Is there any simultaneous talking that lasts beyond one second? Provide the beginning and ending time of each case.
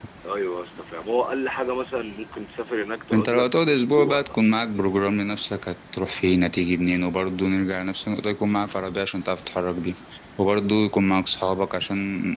3.1-4.5

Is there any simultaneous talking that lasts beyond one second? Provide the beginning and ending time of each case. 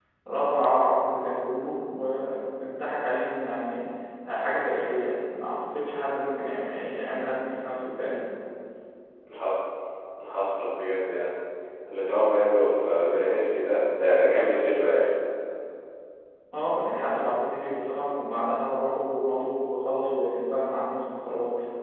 none

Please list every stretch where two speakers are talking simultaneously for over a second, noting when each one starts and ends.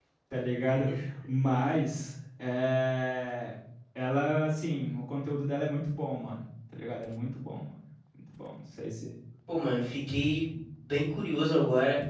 none

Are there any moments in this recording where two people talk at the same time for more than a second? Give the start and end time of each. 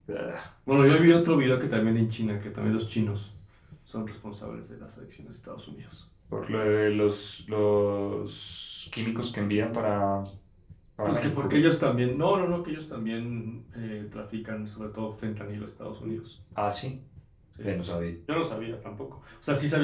none

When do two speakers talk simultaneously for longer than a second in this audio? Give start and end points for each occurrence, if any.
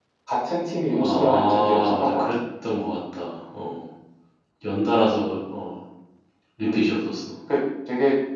1.0-2.4

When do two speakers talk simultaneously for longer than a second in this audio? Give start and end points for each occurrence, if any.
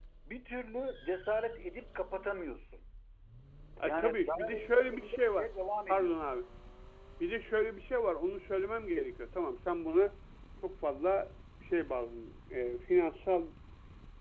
3.8-5.5

